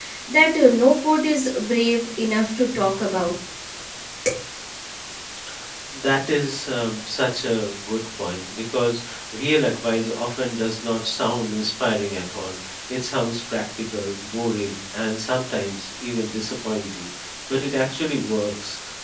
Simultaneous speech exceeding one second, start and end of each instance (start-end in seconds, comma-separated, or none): none